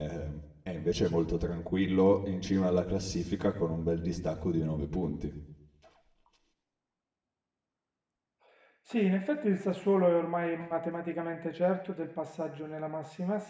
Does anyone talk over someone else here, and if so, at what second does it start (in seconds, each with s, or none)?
none